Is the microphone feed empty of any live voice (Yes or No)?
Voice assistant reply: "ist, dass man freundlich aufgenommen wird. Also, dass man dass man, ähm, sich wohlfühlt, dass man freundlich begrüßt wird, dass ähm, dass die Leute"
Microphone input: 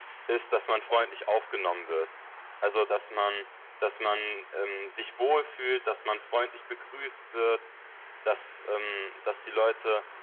Yes